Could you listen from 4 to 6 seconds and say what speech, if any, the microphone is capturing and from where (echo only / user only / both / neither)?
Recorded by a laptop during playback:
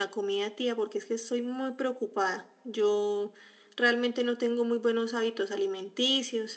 user only